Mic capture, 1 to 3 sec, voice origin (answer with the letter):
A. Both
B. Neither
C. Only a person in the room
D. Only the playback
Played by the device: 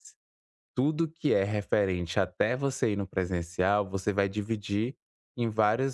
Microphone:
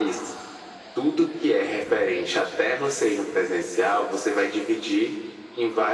D